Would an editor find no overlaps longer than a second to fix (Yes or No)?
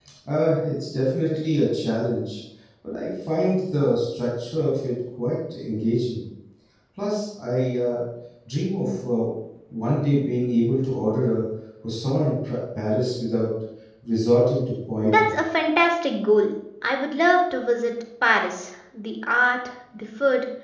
Yes